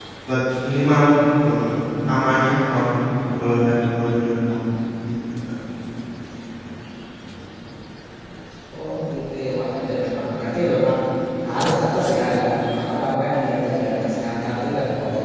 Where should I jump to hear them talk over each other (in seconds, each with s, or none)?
none